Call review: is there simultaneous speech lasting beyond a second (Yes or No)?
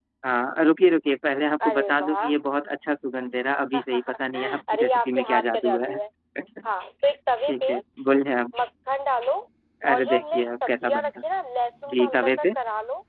Yes